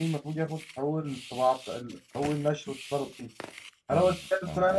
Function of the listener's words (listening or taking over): listening